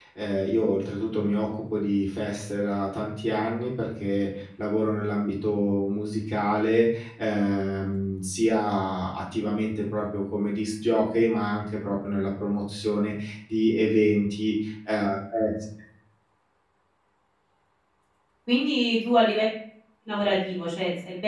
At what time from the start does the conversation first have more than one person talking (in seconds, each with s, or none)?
none